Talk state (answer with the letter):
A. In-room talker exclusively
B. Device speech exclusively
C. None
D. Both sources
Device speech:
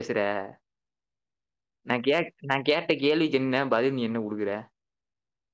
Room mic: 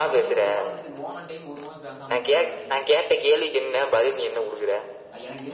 D